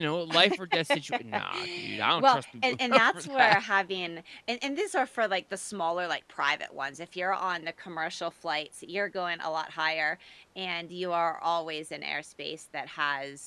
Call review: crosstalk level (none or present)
present